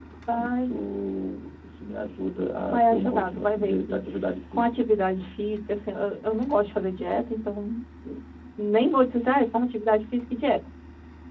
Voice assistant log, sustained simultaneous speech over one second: present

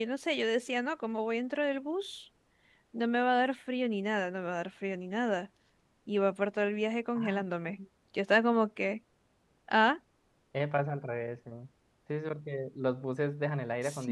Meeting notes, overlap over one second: none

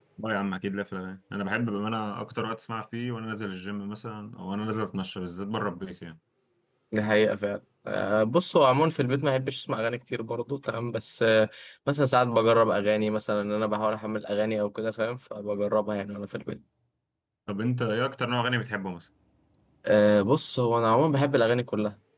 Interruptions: none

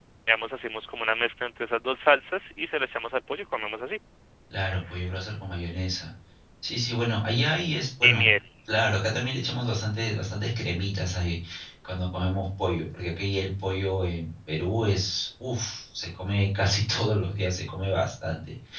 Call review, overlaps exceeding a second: none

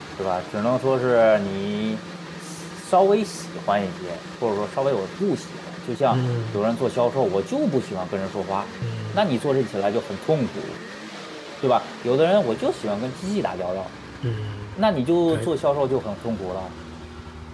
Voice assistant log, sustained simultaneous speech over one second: none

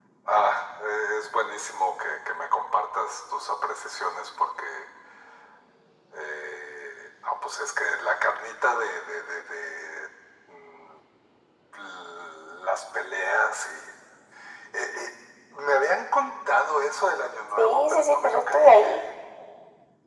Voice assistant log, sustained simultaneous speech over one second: present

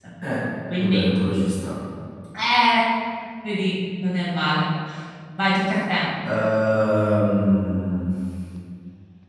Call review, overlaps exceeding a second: none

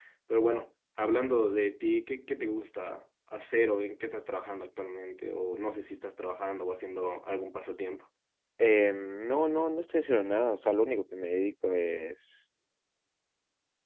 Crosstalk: none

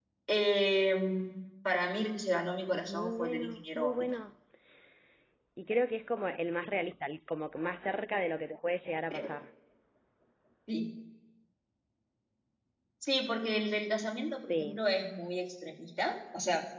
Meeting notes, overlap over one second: present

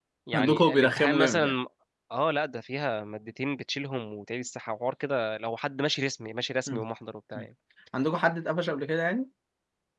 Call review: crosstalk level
present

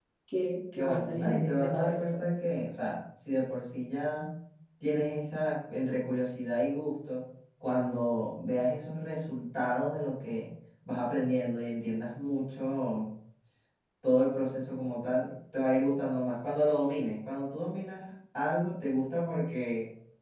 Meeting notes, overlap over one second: present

